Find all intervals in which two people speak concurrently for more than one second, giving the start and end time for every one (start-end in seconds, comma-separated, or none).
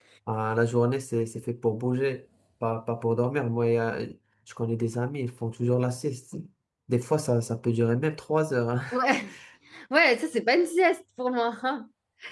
none